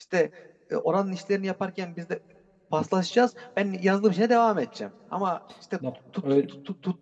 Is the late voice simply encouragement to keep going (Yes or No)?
Yes